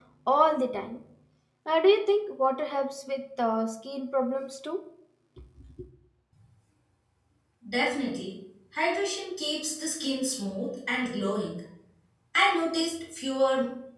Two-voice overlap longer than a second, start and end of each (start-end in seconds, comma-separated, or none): none